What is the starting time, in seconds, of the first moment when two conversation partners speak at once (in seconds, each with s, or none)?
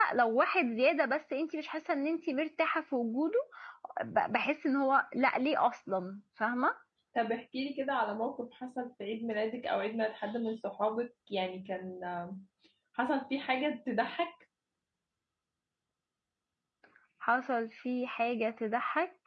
none